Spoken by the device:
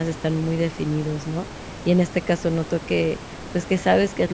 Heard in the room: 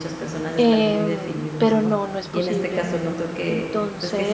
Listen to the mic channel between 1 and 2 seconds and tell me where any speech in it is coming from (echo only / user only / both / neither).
both